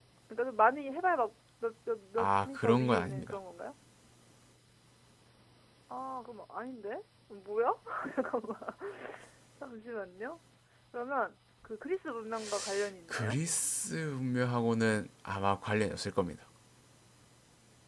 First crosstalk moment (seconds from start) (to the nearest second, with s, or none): 2 s